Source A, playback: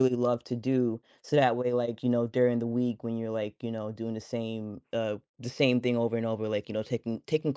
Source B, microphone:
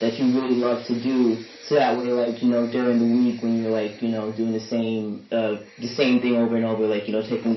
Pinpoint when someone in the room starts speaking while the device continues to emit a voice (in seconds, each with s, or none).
none